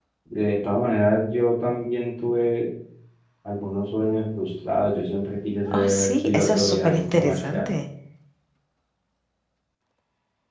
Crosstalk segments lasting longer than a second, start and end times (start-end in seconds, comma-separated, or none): 5.7-7.7